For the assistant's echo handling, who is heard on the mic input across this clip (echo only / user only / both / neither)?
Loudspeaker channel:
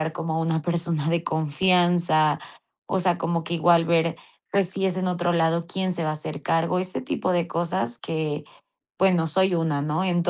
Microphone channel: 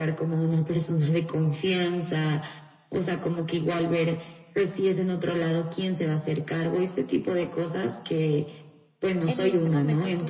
both